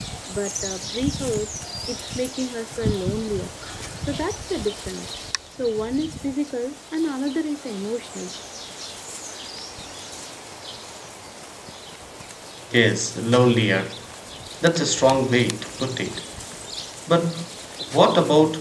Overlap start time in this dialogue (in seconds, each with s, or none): none